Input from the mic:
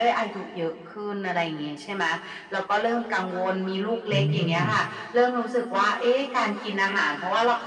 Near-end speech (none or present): present